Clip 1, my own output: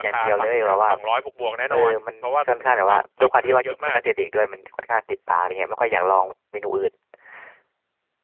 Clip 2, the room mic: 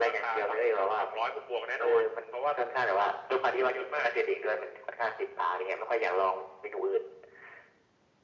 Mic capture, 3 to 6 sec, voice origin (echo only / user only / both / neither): echo only